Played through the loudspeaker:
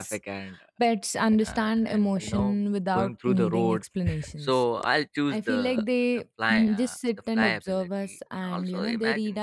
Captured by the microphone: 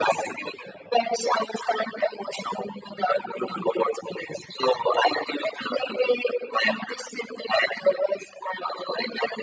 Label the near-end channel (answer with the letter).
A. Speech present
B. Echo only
B